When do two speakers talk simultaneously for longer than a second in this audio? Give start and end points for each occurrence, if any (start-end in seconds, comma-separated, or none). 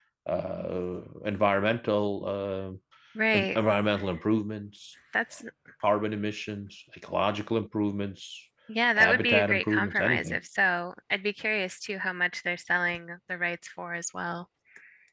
9.0-10.4